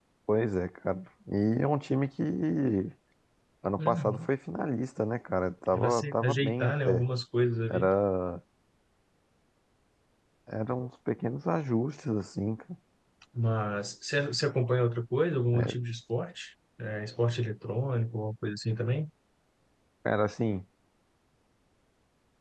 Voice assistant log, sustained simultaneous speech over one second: present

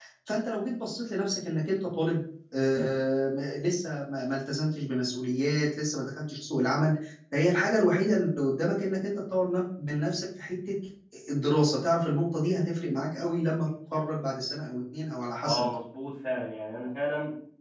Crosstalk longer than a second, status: none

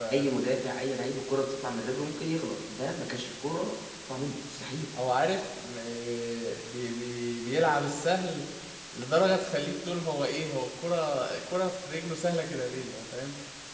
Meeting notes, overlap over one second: none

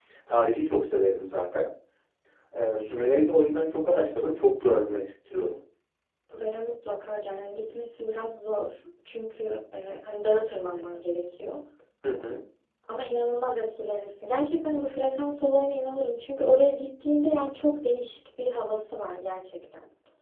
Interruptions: none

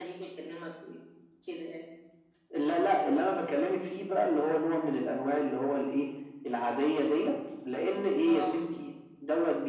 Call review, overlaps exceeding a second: none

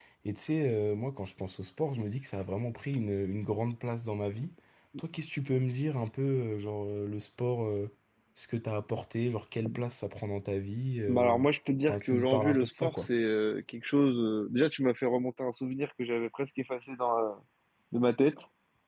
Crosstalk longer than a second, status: present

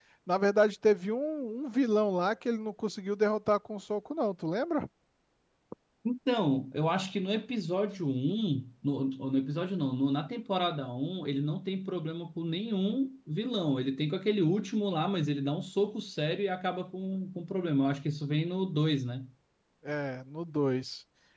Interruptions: none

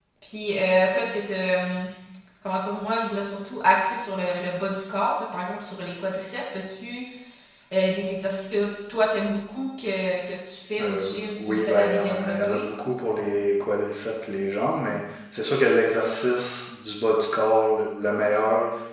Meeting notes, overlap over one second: present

